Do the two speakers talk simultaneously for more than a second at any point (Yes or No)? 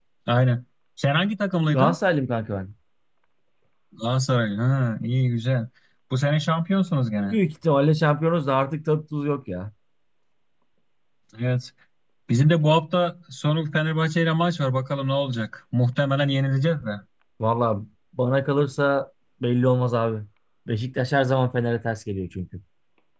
No